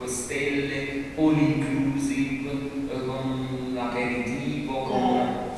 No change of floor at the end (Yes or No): Yes